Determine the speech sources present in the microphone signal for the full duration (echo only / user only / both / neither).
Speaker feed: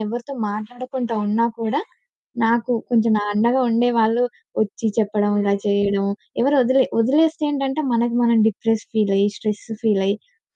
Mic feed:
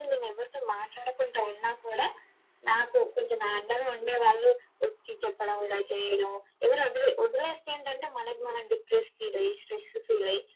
echo only